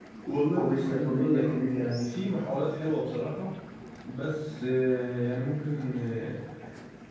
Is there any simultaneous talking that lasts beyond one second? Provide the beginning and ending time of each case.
0.6-2.0

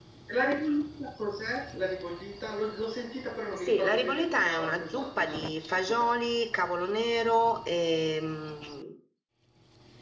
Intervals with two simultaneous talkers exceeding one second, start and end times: 3.5-6.1

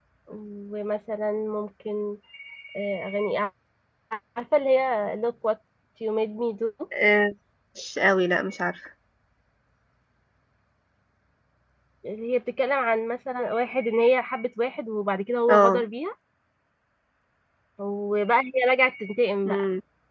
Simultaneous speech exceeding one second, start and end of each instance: none

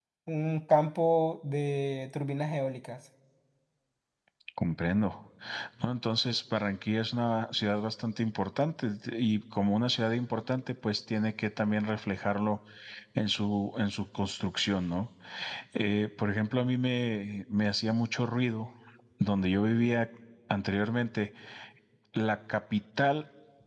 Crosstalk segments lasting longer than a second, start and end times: none

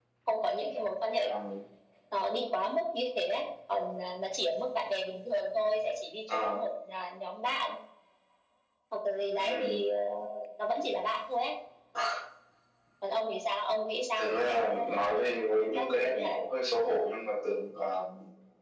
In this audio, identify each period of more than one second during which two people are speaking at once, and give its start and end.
14.2-16.4

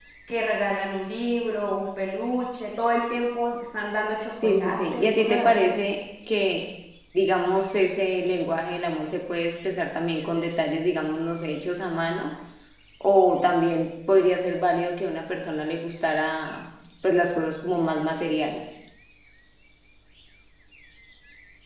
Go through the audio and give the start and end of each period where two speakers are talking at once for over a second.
4.3-5.7

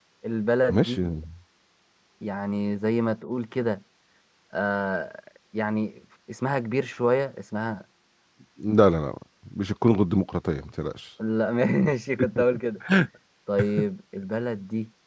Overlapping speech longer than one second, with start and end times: none

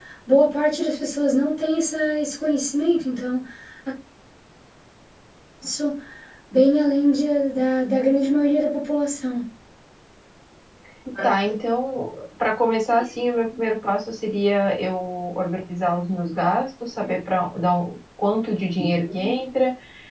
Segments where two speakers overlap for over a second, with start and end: none

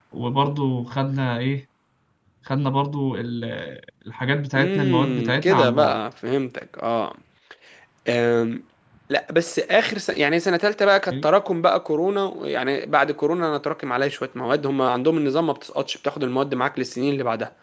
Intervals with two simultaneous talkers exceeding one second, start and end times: 4.5-6.0

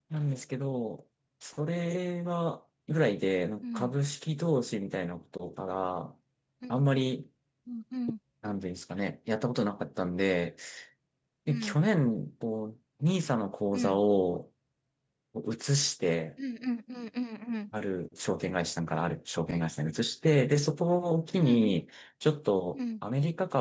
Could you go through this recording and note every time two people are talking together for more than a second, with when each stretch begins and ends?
none

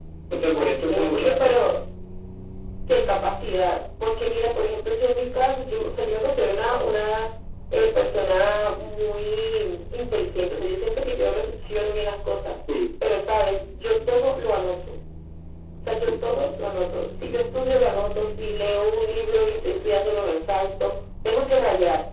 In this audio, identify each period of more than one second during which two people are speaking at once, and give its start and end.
0.5-1.7

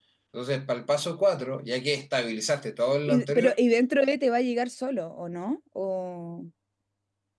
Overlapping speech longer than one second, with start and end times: none

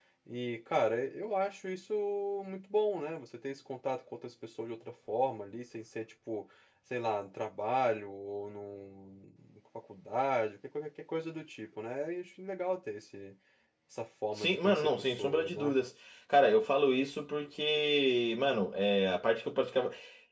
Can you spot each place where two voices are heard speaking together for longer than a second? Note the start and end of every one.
14.3-15.7

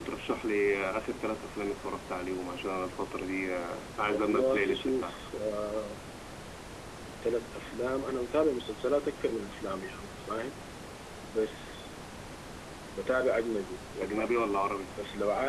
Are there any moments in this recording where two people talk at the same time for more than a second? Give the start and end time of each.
4.0-5.2

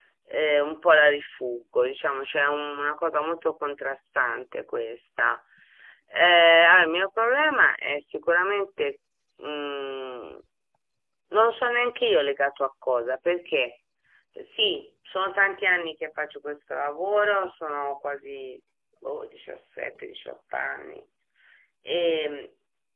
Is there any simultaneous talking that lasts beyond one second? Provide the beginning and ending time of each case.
none

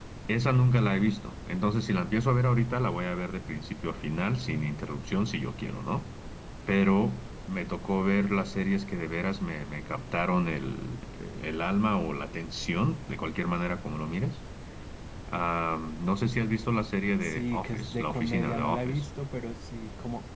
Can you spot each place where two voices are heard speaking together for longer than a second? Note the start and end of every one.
17.2-19.0

